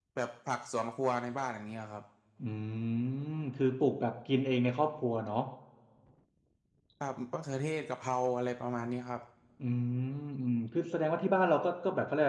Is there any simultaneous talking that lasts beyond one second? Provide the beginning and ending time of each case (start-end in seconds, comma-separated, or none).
none